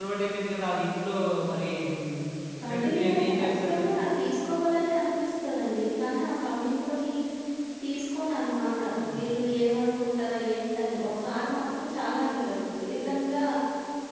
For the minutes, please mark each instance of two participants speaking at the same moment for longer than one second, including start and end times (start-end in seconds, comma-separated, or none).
2.7-3.9